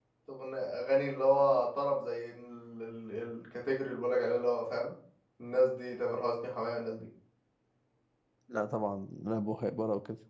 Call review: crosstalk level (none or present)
none